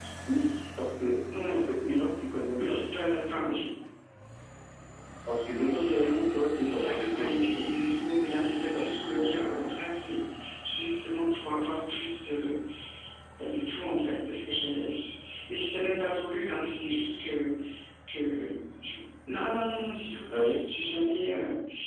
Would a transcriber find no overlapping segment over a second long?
No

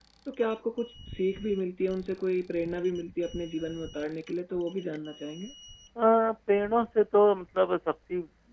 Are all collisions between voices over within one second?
Yes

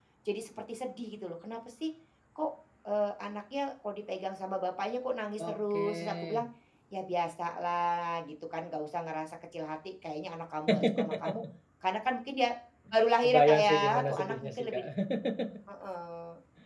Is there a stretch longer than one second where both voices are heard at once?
Yes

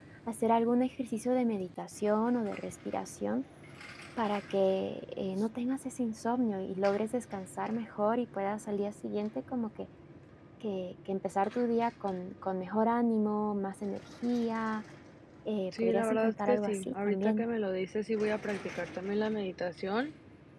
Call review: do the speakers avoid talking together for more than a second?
No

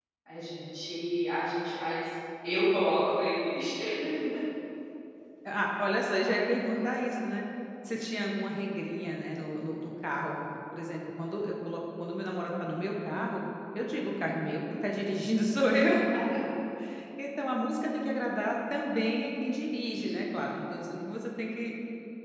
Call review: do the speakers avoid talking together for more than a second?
Yes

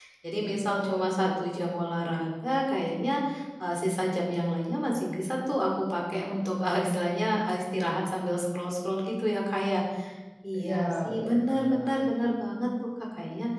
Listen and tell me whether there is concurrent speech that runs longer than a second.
Yes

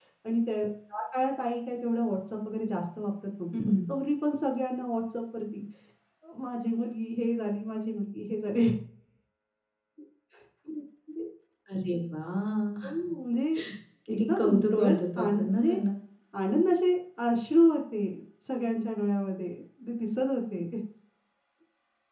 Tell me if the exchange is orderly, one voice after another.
No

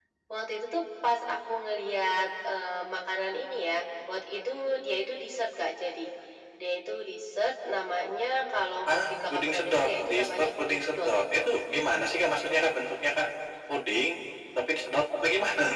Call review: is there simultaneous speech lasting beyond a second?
Yes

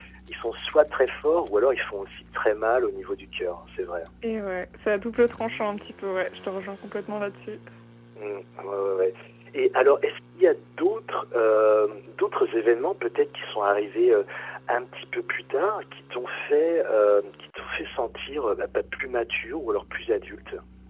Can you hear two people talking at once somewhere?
No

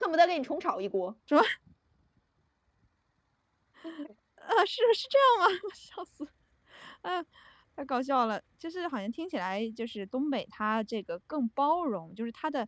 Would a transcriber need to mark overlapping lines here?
No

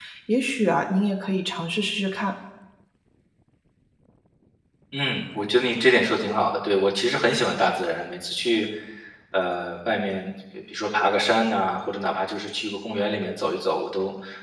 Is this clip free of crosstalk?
Yes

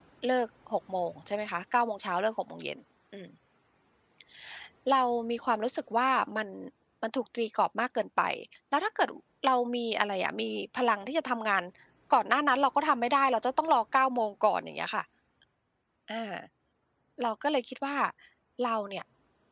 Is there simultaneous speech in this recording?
No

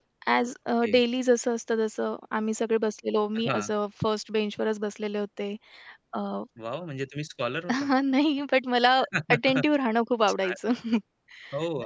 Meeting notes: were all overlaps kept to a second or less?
Yes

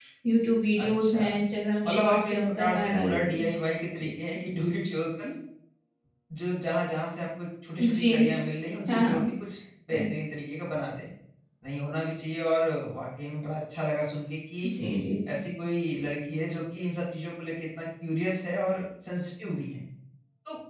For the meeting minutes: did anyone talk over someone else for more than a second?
Yes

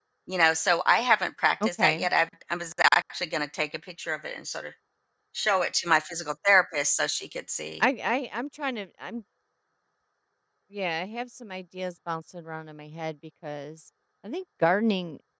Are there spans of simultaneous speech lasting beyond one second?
No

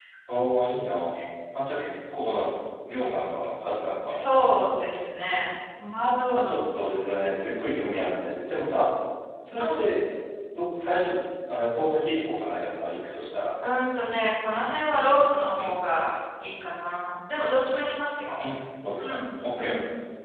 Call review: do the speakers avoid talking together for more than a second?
Yes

